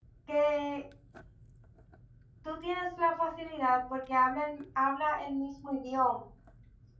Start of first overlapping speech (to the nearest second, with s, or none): none